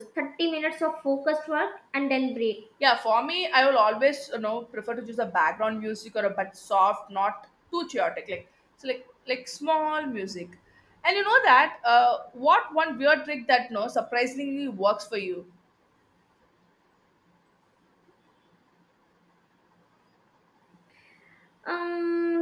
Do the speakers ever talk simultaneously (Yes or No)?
No